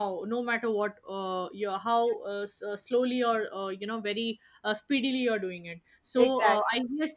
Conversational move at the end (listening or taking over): listening